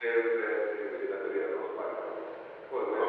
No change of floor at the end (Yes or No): Yes